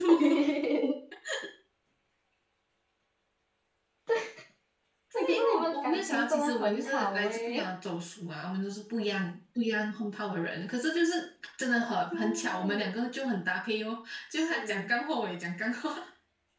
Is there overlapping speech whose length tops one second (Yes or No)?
Yes